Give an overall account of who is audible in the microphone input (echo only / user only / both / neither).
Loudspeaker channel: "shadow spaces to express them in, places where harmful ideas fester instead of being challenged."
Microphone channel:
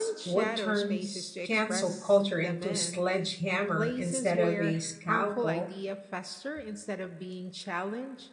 both